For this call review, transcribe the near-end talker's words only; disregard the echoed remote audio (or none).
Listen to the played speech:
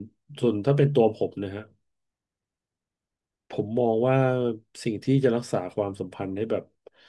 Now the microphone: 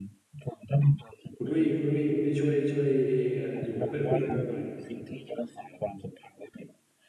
คุณดุ้ยคุณดุ้ยคุณดุ้ยช่วยช่วยอยู่เป็นเพื่อนคุยกับผมหน่อย